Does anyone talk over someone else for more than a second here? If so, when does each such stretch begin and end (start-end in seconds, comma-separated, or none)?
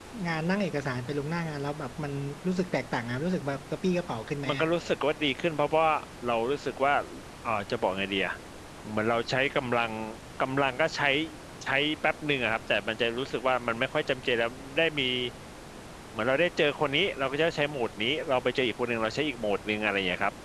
none